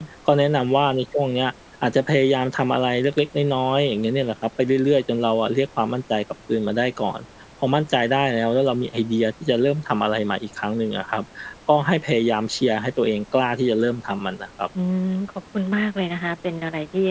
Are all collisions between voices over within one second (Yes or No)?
Yes